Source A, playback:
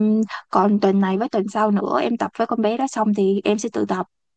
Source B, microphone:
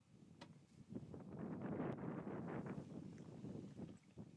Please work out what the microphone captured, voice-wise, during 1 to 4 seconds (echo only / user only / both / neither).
neither